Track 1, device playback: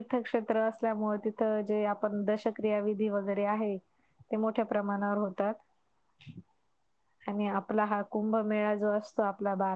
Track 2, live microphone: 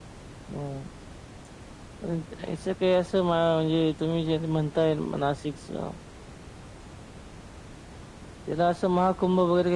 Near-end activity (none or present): present